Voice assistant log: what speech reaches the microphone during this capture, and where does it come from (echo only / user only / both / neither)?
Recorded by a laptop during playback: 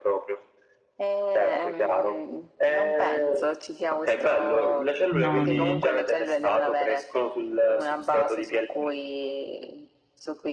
both